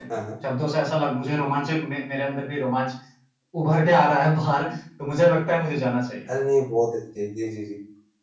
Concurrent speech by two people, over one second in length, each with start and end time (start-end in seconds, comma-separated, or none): none